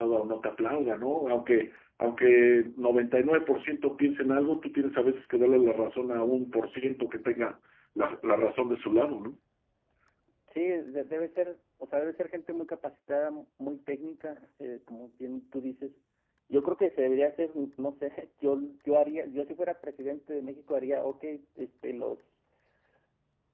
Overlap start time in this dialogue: none

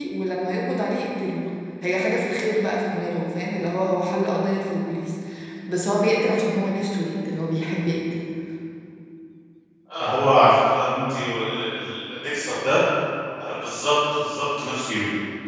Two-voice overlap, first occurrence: none

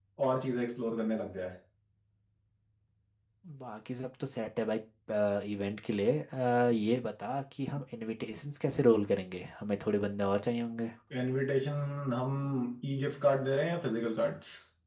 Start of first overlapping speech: none

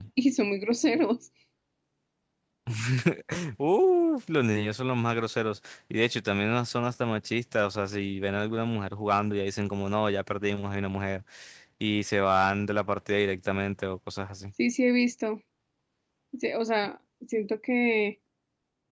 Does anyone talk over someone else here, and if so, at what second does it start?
none

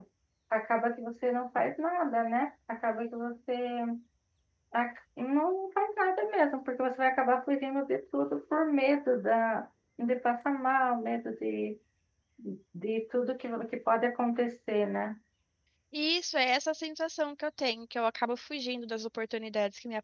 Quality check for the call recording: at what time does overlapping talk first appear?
none

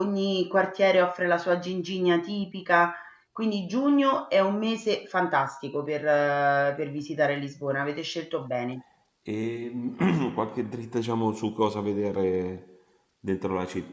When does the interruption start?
none

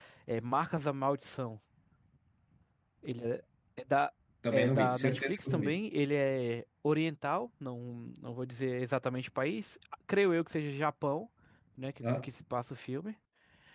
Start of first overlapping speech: 4.5 s

